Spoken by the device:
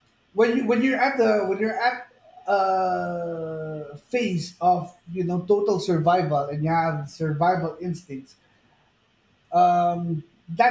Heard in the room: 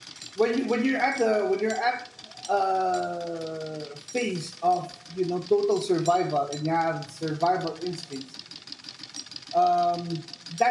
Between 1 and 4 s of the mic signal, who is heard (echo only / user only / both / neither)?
echo only